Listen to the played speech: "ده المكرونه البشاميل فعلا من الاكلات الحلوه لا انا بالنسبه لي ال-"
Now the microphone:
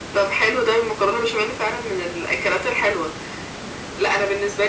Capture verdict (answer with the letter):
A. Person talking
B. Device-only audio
B